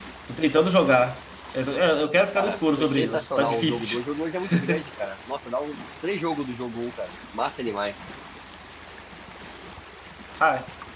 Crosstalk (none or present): present